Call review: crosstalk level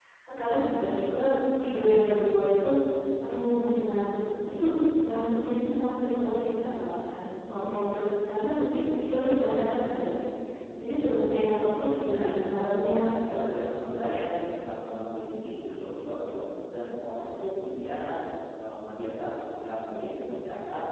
present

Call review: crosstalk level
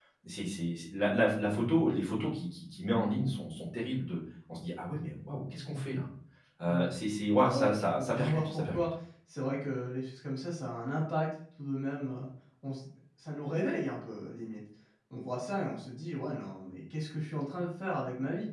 present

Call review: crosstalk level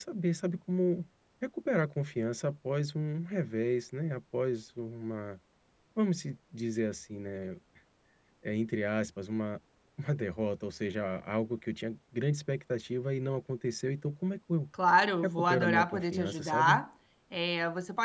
present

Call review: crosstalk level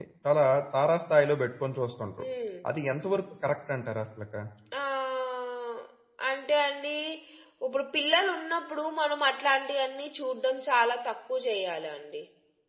none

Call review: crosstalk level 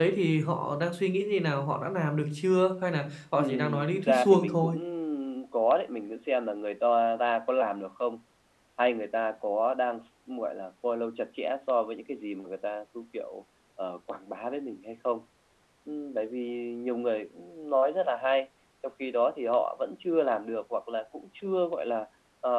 present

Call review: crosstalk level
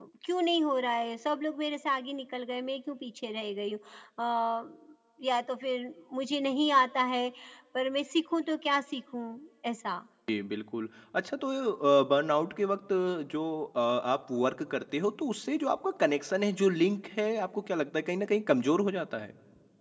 none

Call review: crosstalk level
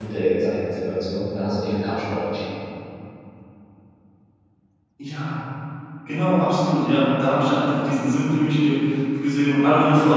none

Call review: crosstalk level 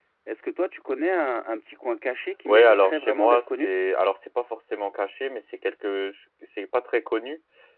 present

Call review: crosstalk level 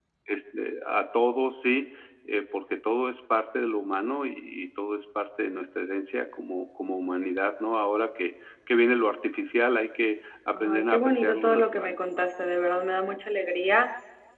present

